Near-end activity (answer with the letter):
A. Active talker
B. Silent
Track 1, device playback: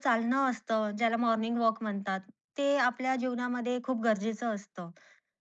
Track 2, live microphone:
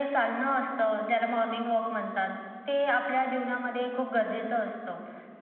B